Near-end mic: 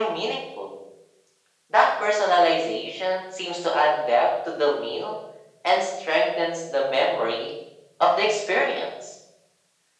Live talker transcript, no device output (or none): none